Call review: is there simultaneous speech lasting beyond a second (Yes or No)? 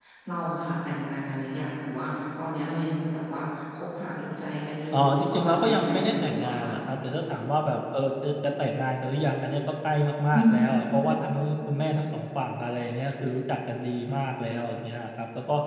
Yes